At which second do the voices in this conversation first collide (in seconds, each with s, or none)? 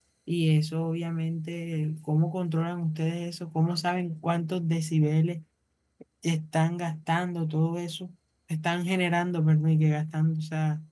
none